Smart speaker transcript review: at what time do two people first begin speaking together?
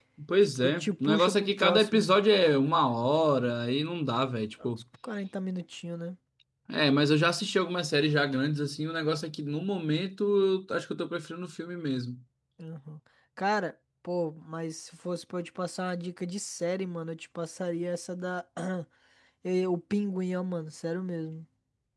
0.6 s

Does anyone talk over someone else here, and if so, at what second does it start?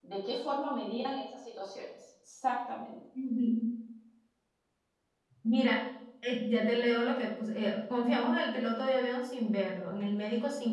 none

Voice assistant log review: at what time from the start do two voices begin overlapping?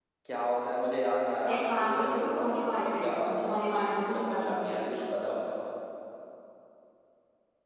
1.5 s

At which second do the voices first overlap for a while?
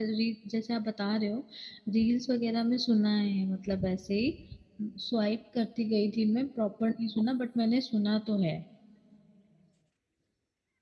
none

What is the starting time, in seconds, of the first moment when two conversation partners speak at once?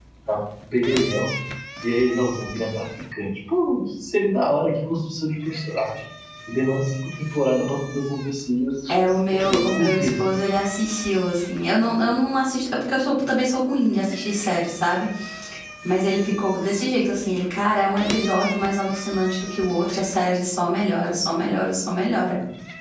8.9 s

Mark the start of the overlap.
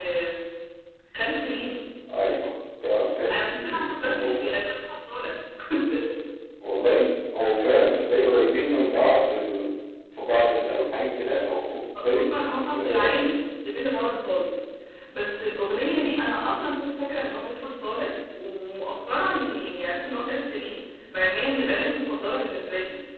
3.3 s

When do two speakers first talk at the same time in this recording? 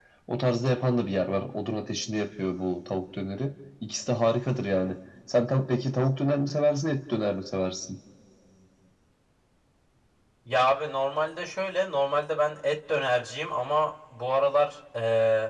none

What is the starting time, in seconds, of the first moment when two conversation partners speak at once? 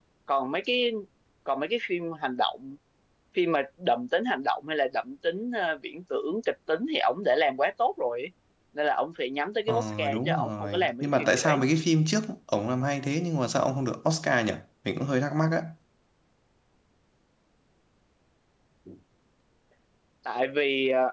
9.7 s

